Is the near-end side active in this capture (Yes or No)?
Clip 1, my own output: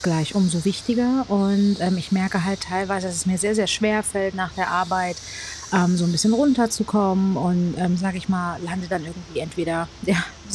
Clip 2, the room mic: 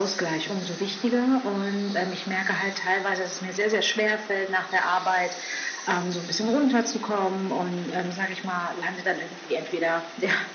No